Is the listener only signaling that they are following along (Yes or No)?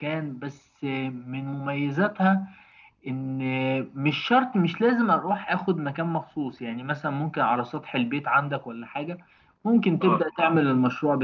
Yes